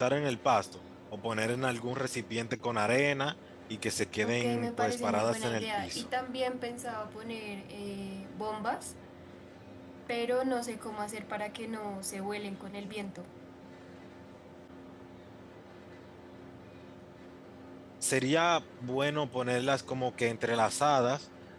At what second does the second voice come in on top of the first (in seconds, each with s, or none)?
4.2 s